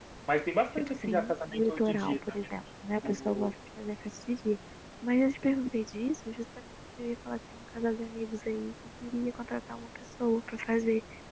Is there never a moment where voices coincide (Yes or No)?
No